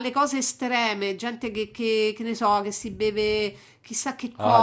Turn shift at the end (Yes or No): Yes